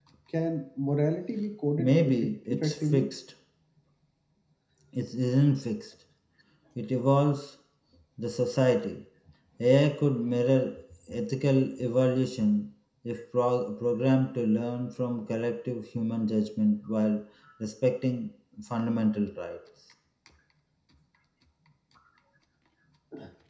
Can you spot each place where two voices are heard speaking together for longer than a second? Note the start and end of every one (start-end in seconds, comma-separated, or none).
1.8-3.1